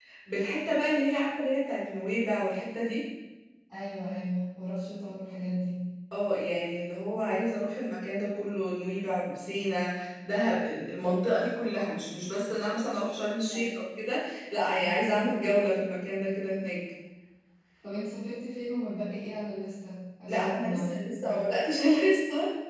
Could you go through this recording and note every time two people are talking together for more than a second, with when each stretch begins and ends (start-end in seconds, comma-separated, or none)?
20.3-21.5